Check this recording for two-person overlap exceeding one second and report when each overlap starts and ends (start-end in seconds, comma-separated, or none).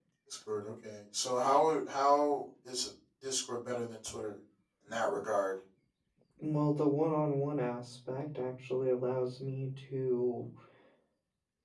none